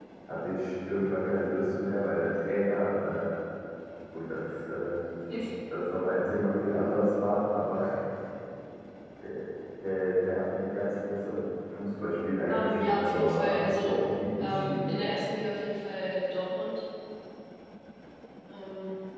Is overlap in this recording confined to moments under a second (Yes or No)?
No